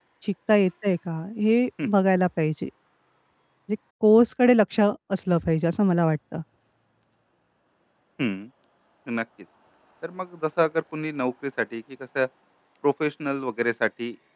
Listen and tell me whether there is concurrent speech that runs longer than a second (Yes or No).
No